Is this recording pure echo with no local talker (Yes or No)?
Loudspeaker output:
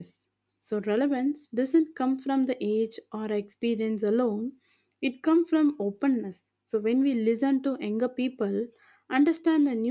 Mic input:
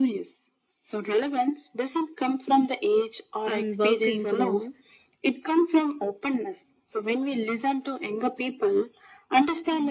No